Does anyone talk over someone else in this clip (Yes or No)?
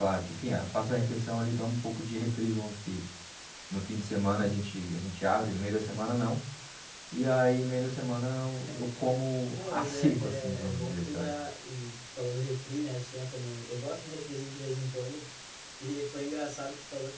Yes